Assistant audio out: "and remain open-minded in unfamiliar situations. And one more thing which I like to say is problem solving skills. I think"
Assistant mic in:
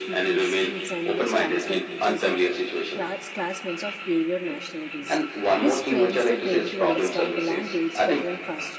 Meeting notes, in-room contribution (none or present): present